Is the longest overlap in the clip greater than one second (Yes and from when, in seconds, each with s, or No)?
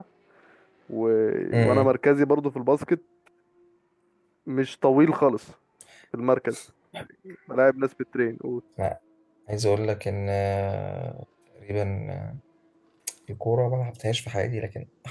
No